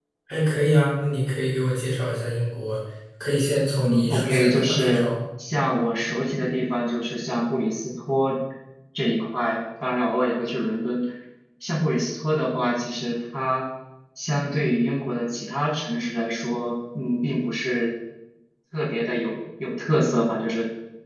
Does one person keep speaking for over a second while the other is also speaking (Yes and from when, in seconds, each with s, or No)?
Yes, from 3.8 s